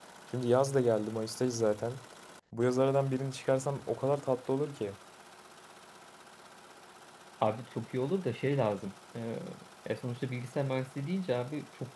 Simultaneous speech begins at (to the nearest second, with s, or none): none